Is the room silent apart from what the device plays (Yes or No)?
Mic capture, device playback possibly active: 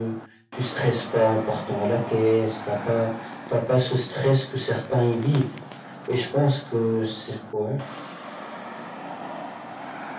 Yes